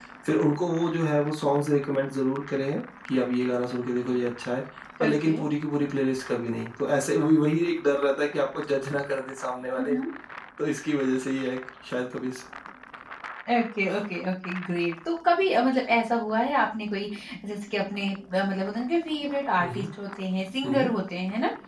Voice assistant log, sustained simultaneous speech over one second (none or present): none